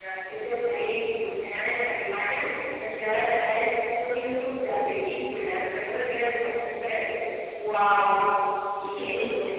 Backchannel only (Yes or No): No